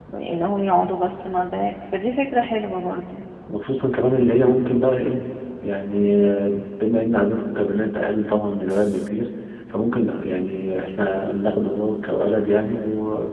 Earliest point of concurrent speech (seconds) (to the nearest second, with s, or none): none